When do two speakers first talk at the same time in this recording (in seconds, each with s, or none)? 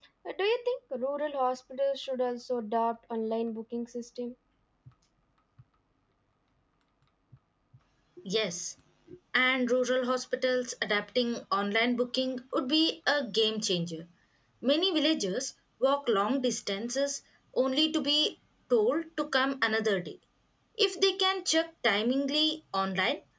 none